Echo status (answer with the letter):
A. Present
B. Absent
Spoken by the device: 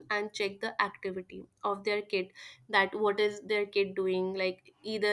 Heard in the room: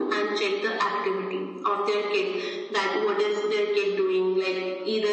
A